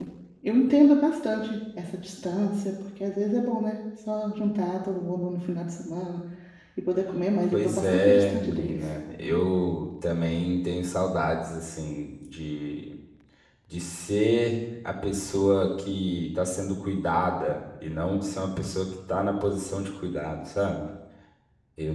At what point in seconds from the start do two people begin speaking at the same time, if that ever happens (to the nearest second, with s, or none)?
8 s